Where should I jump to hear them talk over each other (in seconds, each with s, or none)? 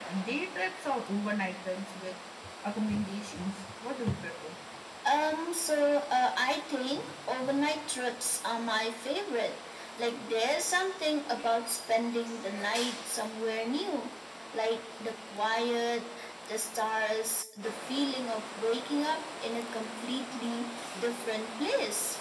none